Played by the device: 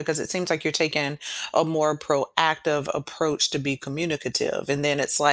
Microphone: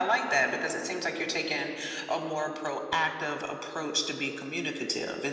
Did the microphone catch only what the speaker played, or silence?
Yes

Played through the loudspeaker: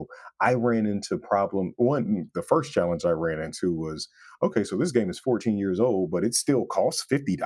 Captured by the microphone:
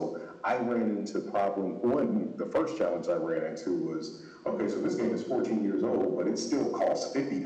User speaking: No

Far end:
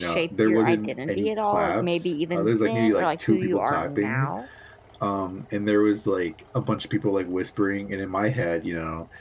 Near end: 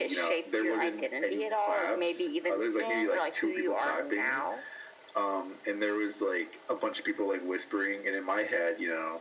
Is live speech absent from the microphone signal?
Yes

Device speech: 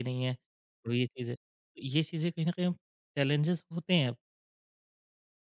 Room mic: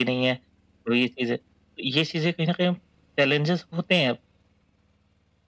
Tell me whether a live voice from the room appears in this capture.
No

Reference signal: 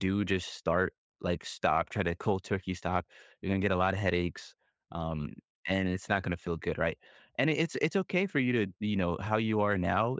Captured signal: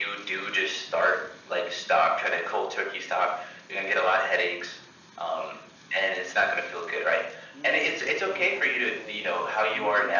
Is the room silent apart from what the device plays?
No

